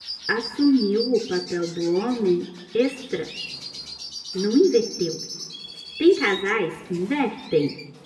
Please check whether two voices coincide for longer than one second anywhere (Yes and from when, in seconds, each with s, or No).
No